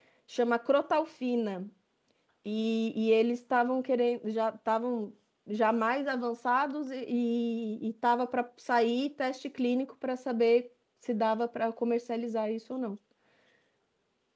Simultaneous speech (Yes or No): No